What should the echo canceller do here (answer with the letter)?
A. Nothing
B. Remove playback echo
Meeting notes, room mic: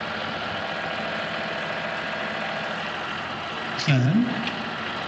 A